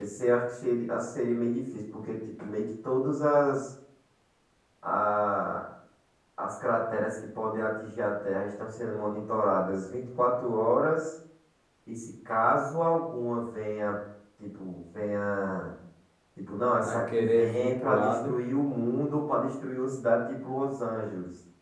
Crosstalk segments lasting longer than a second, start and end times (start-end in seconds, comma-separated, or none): 16.8-18.4